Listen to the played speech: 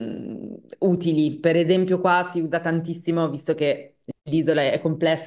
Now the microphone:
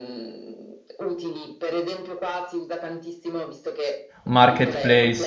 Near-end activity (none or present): present